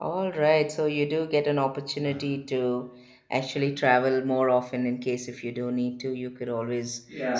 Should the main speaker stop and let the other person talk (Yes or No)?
Yes